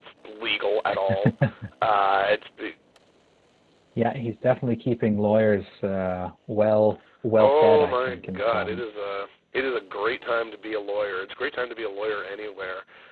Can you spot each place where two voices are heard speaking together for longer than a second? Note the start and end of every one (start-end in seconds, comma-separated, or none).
7.4-8.9